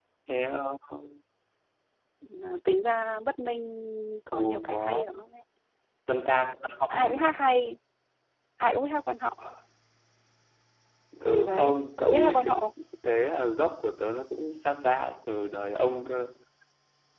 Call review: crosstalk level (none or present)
present